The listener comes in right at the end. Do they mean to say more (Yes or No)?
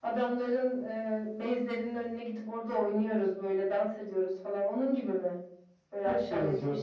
Yes